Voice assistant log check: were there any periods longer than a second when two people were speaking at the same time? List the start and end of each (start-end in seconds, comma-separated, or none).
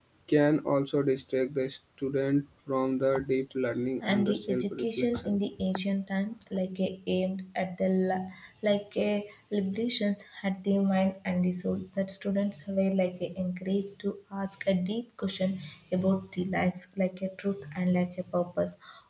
4.0-5.4